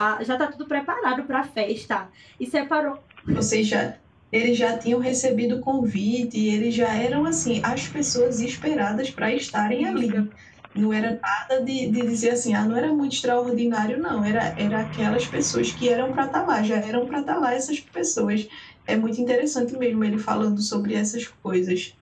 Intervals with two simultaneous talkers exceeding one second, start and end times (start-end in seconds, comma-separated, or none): none